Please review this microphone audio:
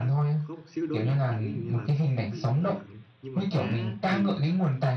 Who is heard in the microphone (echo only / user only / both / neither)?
both